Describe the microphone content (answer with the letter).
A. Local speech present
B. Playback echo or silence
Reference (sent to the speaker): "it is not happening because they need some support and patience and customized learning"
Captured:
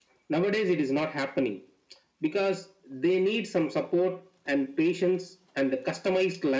B